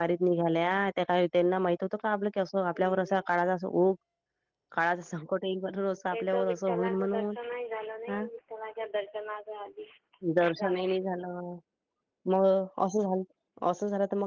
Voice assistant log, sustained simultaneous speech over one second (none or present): present